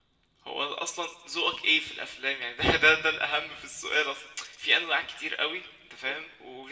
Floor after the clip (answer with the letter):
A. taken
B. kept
B